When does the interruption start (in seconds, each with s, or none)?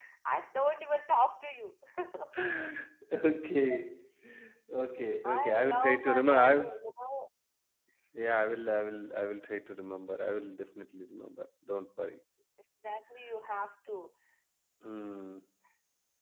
5.2 s